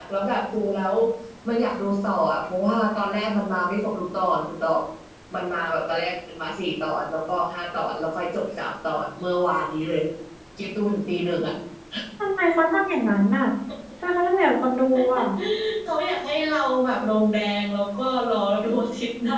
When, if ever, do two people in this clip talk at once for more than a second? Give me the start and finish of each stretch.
none

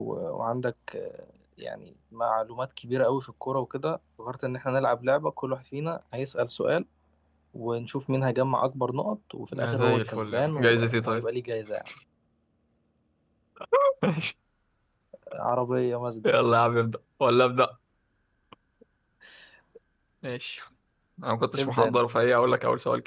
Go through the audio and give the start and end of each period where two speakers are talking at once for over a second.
9.5-11.3

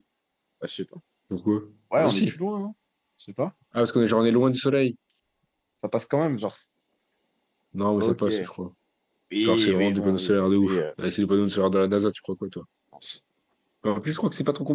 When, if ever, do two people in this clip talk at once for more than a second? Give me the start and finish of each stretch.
9.4-10.8

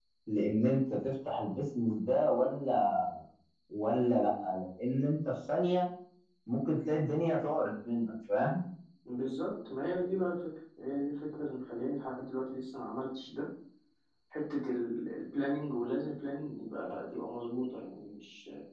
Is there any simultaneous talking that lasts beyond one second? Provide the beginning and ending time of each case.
none

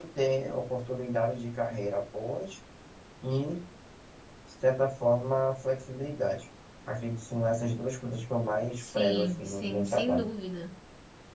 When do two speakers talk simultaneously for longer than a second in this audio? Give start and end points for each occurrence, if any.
8.8-10.3

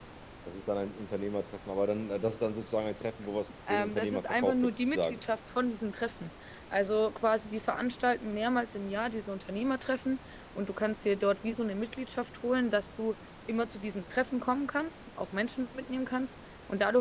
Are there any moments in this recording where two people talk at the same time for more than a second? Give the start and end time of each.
3.7-5.2

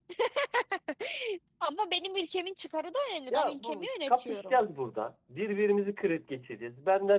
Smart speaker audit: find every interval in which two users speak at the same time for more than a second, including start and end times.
3.3-4.6

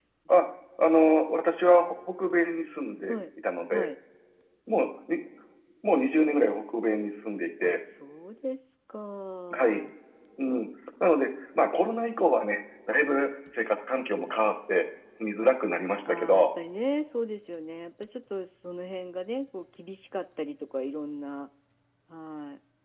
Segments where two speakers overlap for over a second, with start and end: none

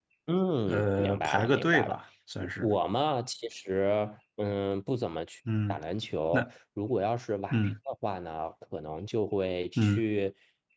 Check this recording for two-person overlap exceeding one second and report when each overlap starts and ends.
0.7-2.0

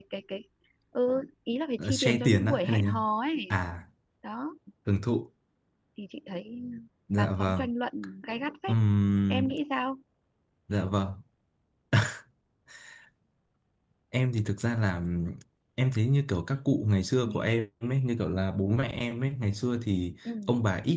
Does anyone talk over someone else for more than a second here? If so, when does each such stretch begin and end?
1.8-3.0

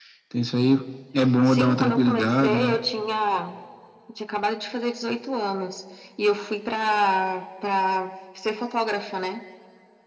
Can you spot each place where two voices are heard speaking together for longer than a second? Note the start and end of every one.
1.4-2.8

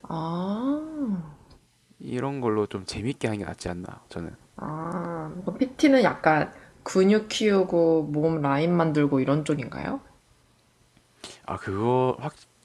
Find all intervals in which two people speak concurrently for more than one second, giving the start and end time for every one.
none

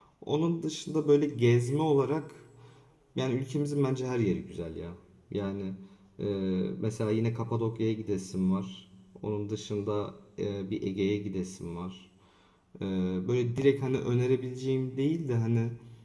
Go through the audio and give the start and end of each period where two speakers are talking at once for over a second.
none

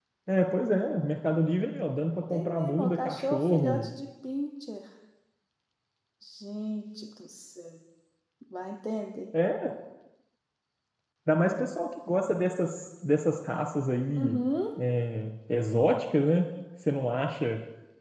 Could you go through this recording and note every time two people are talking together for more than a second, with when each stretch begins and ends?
2.3-3.9

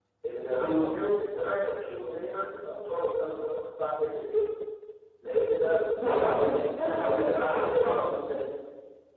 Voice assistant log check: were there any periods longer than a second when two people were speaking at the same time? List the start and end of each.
6.0-8.0

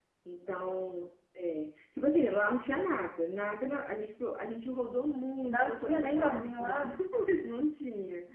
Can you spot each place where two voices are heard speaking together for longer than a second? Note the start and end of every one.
5.5-6.9

